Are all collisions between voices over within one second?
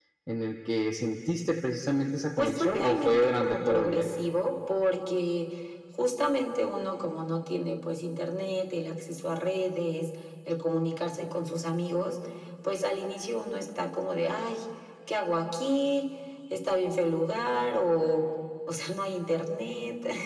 No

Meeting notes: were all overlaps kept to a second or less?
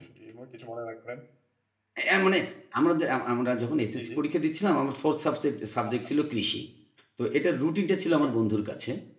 Yes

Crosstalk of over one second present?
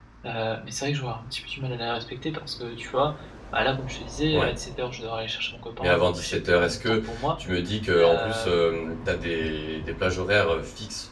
Yes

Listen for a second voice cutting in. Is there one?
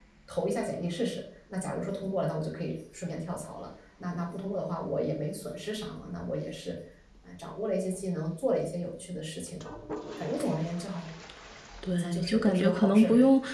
Yes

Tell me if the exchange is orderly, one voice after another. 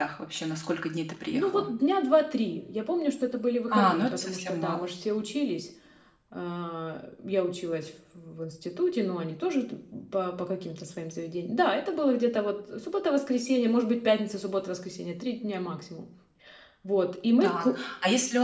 No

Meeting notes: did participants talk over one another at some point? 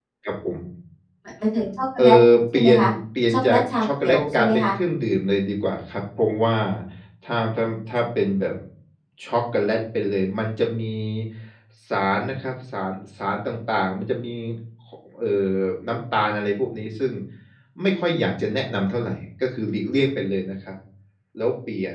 Yes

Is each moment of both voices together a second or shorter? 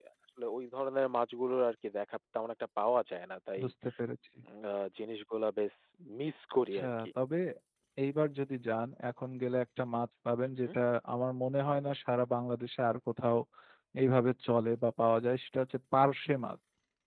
Yes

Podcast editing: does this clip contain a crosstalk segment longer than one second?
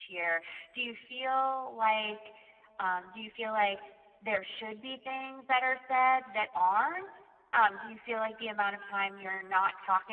No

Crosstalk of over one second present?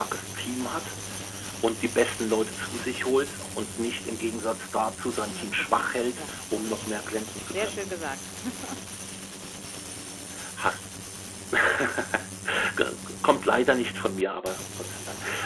Yes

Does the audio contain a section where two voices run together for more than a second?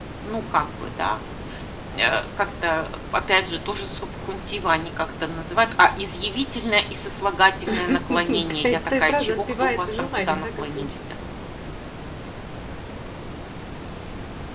Yes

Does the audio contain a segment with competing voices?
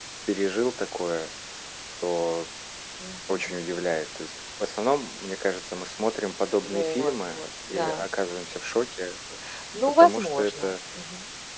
Yes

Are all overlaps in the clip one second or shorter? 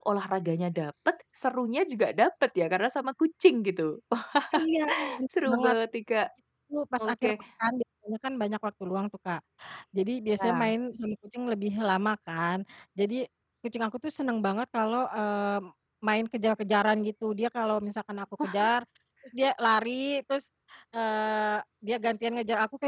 Yes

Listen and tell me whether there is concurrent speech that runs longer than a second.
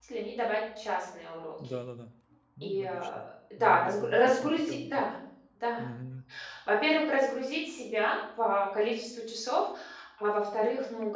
Yes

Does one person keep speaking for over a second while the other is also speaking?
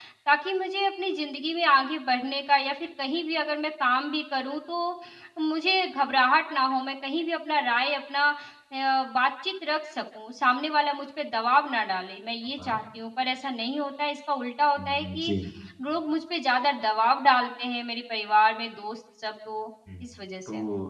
No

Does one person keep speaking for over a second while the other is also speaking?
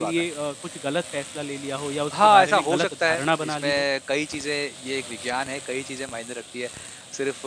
Yes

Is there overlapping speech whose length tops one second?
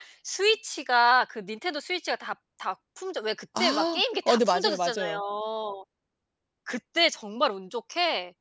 Yes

